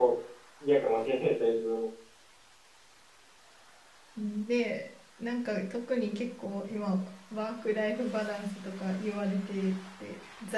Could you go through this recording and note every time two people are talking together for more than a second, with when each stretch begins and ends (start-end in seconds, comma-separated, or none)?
none